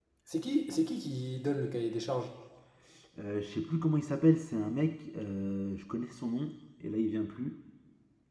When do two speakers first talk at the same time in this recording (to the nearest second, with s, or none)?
none